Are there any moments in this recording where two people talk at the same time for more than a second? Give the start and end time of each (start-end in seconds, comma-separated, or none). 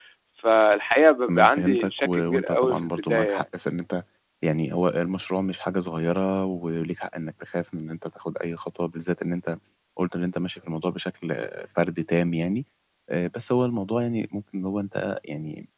1.3-3.4